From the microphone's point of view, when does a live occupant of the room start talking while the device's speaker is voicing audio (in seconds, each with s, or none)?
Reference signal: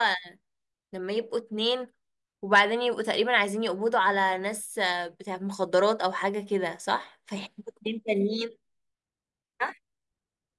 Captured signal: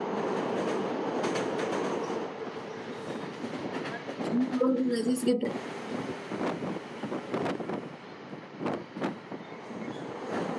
4.2 s